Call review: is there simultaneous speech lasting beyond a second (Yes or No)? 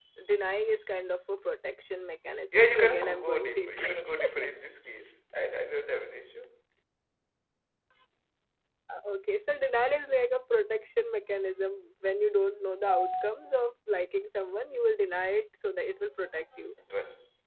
Yes